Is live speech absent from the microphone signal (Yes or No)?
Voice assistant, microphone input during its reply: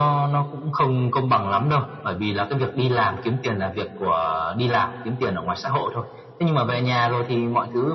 Yes